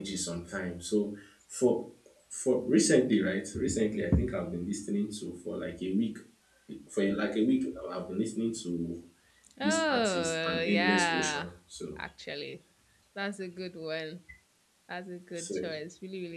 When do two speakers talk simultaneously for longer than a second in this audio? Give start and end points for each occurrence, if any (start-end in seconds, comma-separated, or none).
9.6-11.5